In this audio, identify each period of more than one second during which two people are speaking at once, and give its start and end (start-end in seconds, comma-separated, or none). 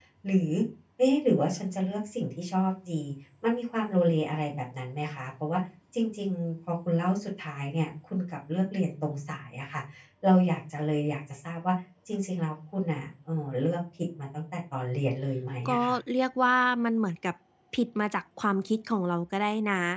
none